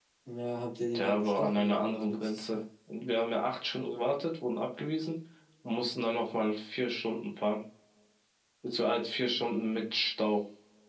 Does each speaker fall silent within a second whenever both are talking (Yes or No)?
No